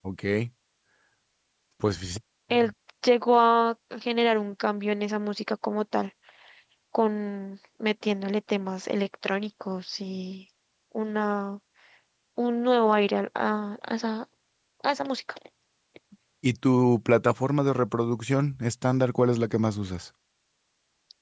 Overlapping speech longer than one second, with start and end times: none

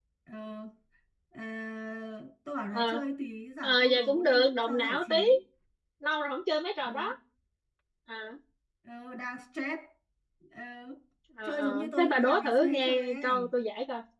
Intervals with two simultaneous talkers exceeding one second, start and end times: 3.6-5.2, 11.4-13.5

